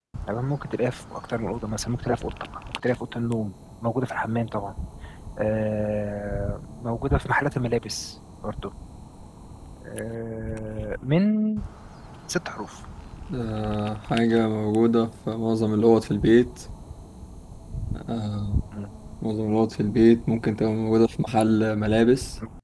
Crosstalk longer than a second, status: none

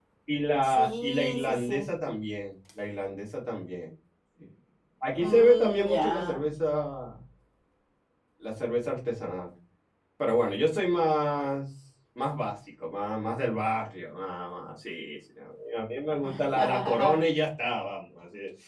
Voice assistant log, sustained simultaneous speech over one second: present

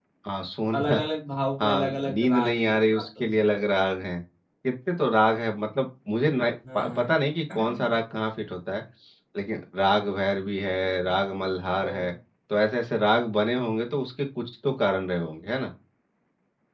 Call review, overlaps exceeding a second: present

